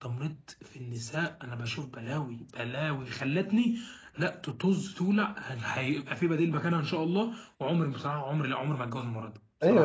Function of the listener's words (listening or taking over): taking over